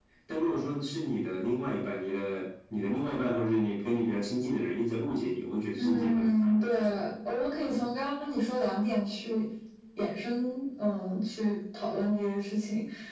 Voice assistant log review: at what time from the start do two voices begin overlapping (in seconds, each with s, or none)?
5.8 s